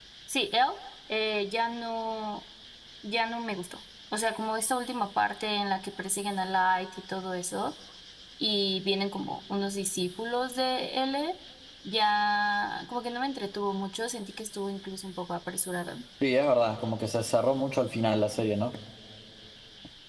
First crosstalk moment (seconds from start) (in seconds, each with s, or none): none